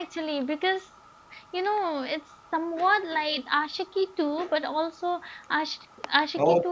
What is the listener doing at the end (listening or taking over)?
taking over